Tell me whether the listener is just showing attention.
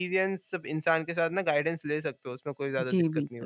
No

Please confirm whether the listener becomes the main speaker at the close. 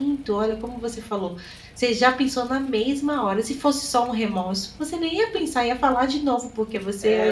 Yes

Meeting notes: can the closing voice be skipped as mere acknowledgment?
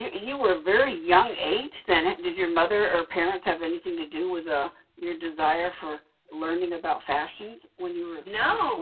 No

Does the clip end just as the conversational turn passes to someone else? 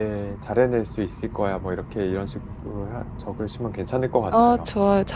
Yes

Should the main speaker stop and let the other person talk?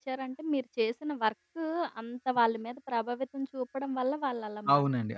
Yes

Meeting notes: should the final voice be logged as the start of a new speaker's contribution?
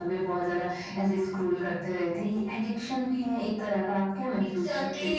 Yes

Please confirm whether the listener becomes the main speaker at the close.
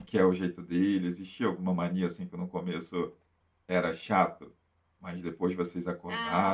Yes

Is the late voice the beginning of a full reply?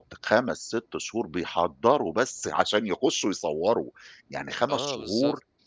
No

